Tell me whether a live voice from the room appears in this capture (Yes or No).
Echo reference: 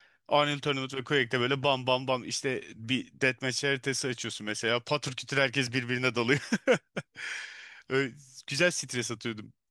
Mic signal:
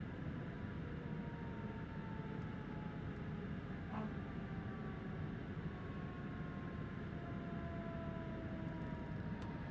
No